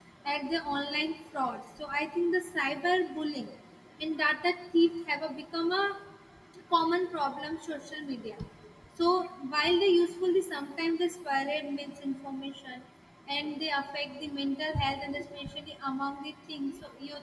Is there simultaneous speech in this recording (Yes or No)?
No